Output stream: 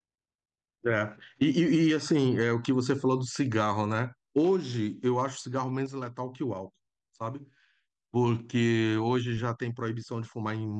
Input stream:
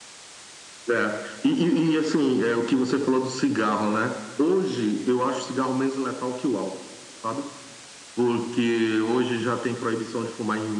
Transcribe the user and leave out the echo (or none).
none